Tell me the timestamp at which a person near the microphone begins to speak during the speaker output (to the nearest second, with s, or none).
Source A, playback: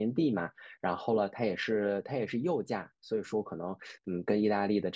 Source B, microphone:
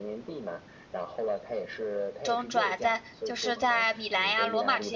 2 s